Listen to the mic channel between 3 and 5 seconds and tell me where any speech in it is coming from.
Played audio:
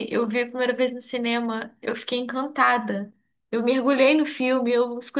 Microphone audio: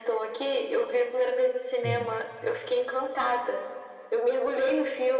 echo only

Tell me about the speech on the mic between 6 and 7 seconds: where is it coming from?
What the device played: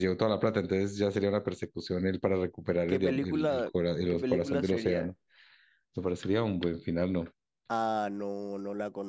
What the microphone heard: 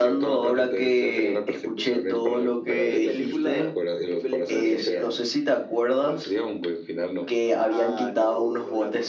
both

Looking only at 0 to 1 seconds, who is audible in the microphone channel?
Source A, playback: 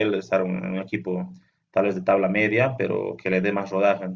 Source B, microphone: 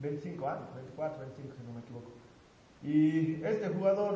user only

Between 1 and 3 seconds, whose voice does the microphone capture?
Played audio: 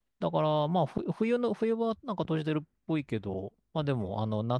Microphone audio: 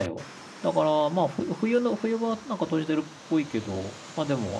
echo only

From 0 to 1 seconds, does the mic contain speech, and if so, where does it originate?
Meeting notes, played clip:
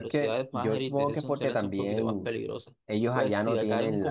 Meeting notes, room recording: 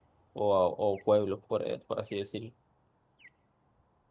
user only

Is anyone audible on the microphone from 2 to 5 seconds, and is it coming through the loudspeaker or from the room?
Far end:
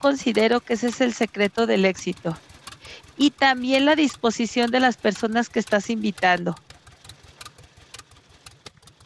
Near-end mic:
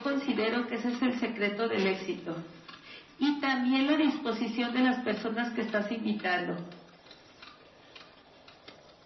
echo only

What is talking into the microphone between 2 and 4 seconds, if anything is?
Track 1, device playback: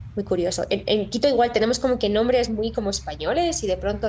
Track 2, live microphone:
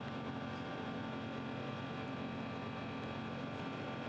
neither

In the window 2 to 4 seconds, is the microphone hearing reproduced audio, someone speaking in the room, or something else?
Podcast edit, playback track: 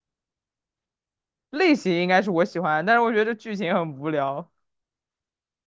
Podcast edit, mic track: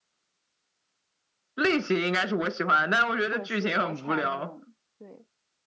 both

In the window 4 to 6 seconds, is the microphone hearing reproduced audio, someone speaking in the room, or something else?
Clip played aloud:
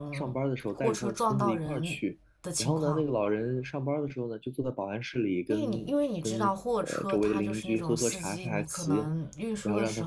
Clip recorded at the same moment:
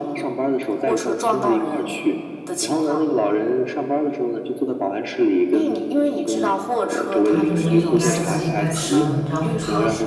echo only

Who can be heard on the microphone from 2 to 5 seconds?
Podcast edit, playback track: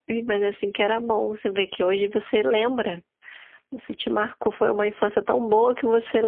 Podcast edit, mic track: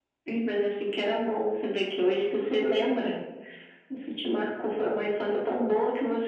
echo only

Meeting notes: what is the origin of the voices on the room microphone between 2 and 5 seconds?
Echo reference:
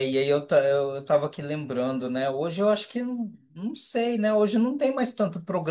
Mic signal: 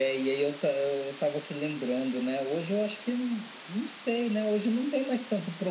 echo only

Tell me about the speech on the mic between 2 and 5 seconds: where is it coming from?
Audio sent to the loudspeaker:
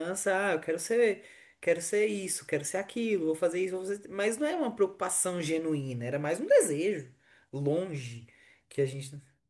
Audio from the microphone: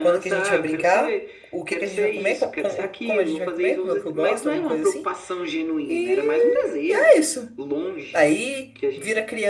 both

